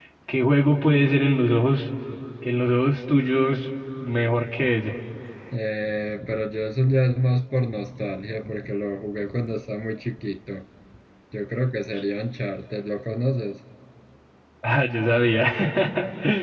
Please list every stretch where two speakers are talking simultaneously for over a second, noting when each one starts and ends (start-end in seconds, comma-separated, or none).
none